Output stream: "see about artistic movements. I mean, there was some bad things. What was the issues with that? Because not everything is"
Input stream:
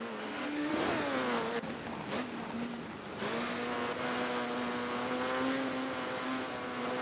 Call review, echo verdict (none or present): none